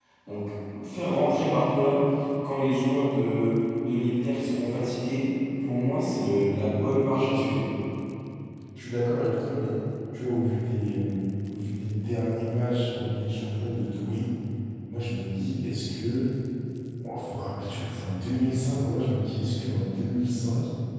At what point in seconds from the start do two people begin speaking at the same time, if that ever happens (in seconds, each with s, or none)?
none